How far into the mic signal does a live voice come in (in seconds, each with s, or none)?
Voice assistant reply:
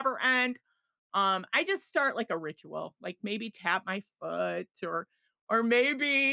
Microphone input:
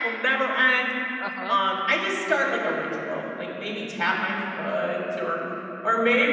1.2 s